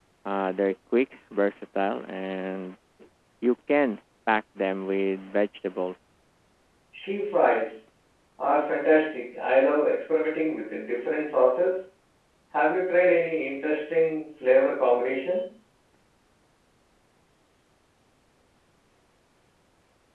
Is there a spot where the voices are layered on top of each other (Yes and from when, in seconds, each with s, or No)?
No